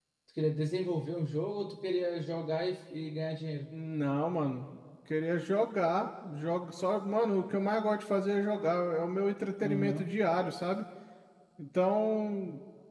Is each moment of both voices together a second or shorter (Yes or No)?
Yes